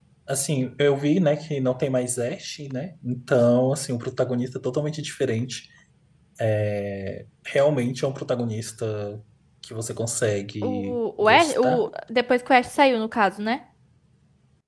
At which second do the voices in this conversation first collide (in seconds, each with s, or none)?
10.6 s